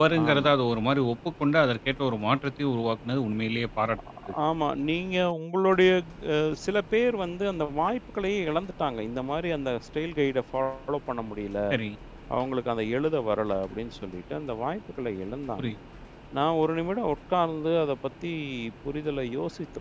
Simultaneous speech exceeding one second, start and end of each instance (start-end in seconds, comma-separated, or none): none